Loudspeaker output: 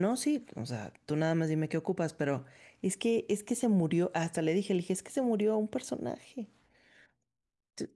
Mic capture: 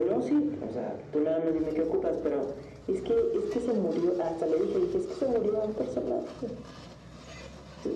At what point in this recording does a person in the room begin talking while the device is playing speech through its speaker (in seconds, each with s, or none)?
none